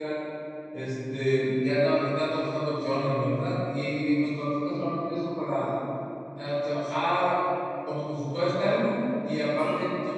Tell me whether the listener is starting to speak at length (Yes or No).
No